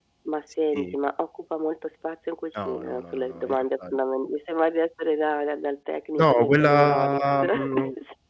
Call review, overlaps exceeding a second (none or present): present